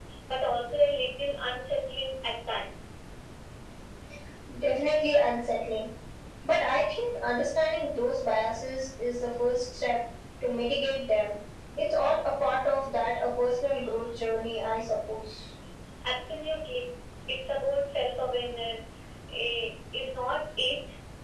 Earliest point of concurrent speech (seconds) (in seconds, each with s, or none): none